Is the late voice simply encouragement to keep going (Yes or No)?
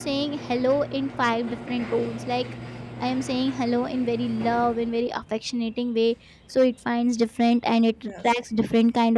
Yes